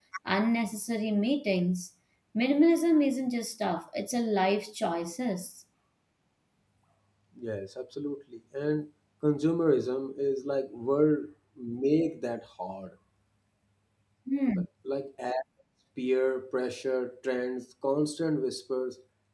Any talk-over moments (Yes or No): No